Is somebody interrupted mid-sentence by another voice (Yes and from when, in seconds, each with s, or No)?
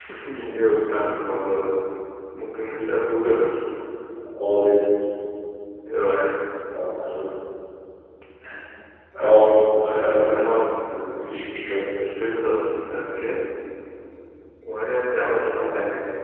Yes, from 9.2 s